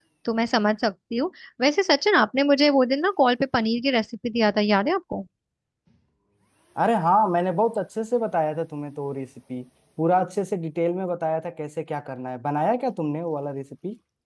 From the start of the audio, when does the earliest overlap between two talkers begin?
none

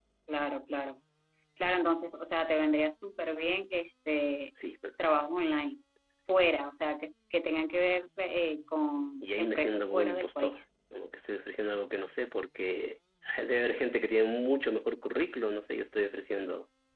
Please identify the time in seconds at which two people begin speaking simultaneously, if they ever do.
9 s

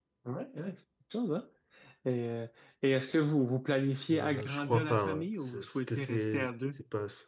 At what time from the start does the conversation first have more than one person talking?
4 s

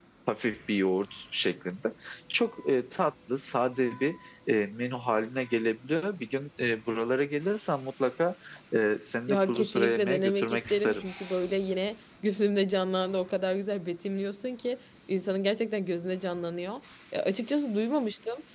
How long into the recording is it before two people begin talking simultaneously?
9 s

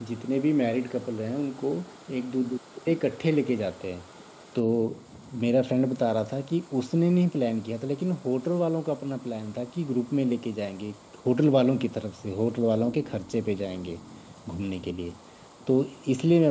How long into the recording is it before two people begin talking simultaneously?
none

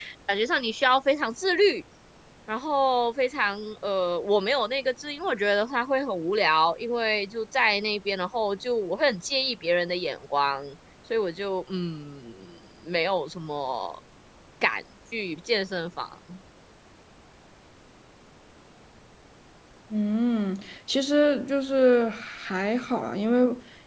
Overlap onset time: none

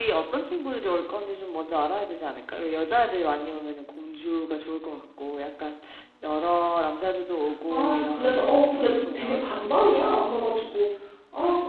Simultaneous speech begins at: 8 s

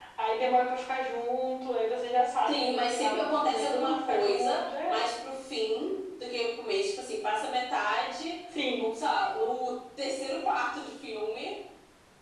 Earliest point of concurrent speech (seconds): 2 s

